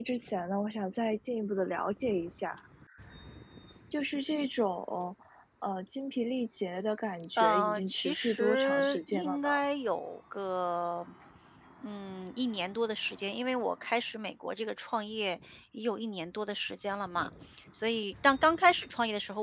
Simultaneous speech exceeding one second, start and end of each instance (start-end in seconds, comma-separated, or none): 7.4-9.5